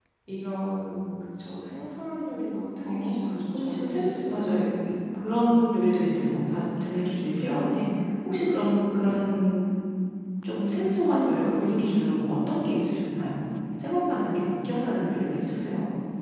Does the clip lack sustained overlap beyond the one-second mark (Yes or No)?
No